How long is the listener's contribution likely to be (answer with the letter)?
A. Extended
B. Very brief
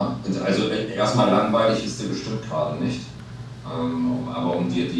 B